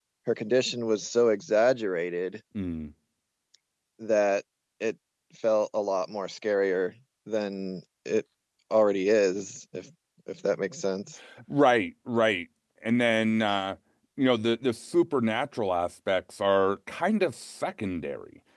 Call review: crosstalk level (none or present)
none